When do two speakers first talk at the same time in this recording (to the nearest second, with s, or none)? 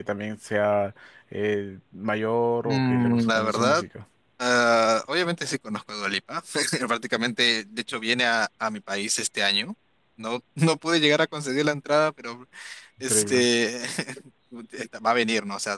3 s